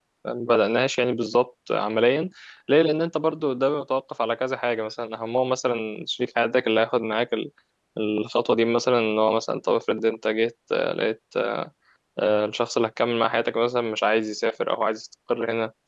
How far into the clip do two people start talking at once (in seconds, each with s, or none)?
none